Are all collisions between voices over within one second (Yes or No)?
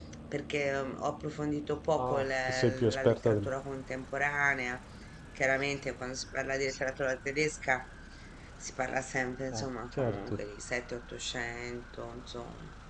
No